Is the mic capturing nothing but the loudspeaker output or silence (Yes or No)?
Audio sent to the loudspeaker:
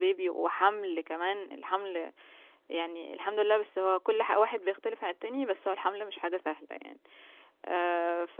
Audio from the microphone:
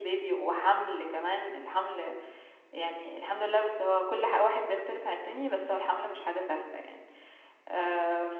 Yes